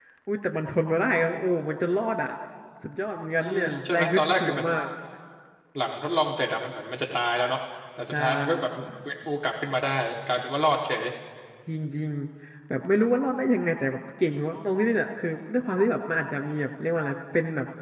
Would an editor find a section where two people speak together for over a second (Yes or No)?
Yes